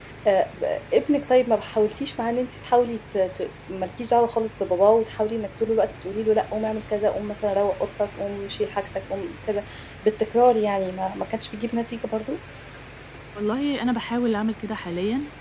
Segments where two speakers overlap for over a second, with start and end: none

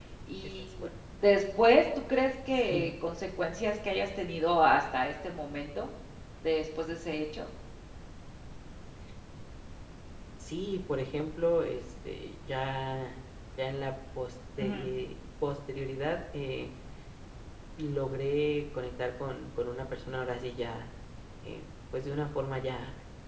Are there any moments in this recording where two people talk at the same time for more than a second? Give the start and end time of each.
none

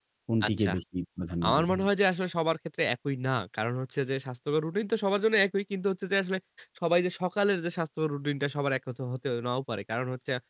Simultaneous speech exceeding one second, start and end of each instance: none

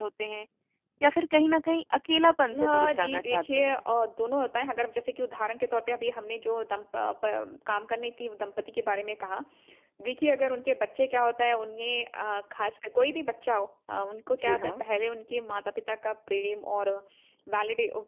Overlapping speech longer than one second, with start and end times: 2.6-3.8

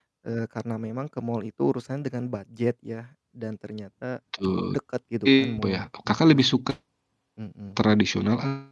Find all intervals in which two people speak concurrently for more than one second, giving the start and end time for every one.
5.2-6.6

